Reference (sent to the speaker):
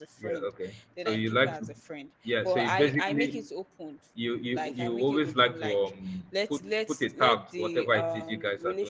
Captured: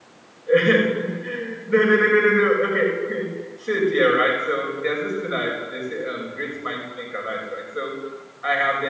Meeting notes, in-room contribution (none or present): present